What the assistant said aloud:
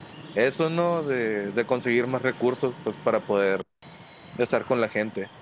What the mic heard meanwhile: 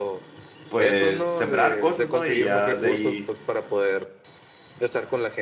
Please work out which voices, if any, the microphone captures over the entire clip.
both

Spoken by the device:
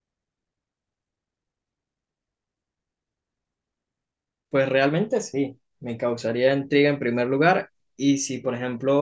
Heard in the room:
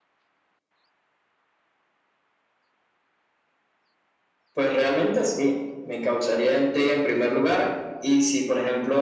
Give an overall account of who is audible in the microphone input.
echo only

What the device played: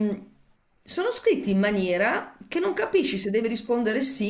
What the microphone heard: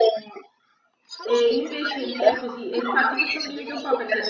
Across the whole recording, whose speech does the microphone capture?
both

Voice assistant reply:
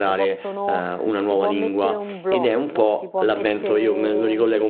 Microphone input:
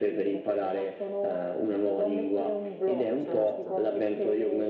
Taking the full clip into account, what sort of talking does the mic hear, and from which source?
both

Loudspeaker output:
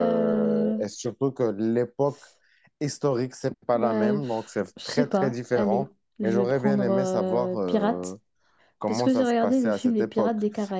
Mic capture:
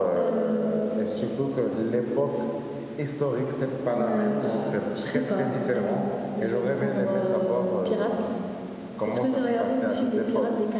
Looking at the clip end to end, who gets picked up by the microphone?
echo only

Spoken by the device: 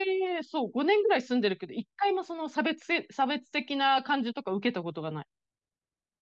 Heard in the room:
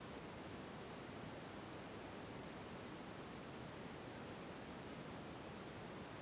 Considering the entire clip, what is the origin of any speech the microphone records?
neither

